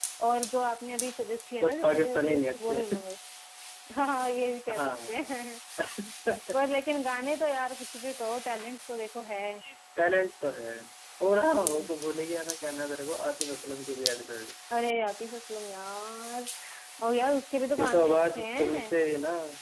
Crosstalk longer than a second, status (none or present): present